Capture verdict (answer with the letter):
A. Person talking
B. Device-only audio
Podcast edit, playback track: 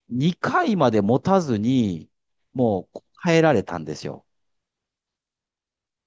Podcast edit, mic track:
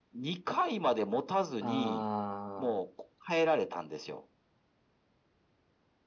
A